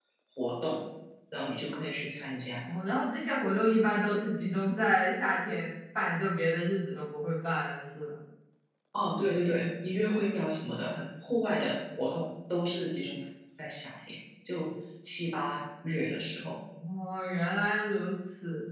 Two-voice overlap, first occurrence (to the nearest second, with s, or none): none